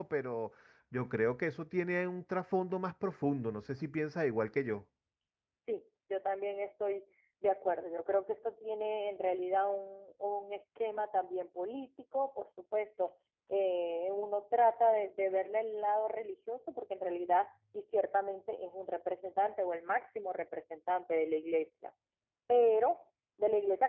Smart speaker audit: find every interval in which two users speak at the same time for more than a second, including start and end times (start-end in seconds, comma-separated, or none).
none